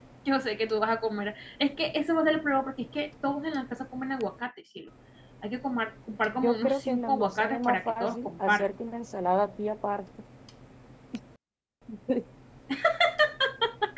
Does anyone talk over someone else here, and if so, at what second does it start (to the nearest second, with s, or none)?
6 s